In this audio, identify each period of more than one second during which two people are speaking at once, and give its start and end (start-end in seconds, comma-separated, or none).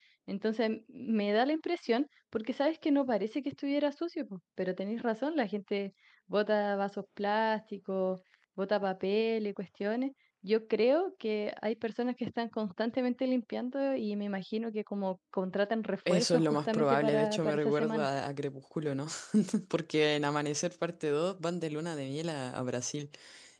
16.1-18.1